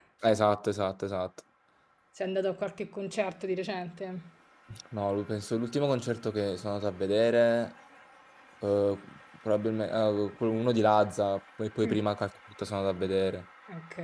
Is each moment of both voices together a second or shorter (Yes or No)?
Yes